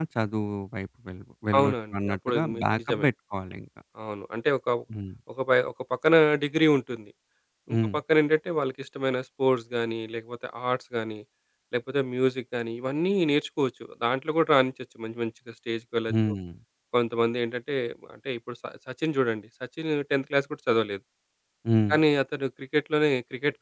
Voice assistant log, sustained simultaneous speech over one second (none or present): present